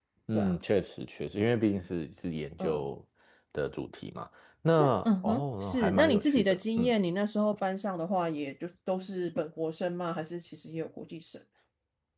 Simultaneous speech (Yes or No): Yes